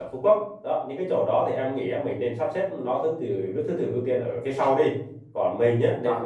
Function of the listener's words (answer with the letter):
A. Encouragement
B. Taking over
A